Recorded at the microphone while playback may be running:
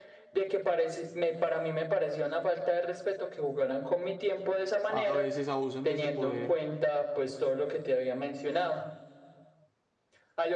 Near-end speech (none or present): present